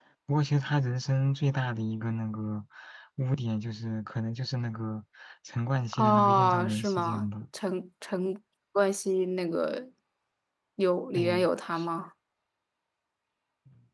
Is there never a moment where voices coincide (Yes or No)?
No